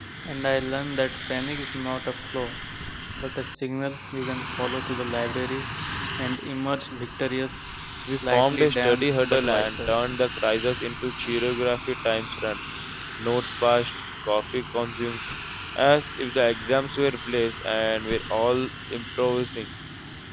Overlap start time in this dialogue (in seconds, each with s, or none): 8.2 s